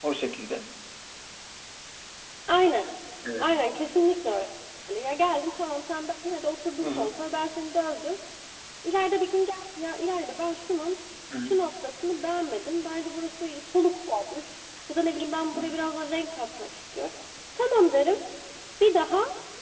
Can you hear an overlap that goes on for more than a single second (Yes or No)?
No